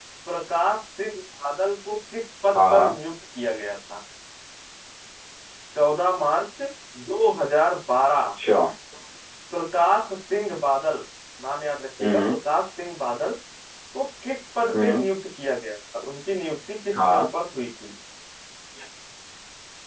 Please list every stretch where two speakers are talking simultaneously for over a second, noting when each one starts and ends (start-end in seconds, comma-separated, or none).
none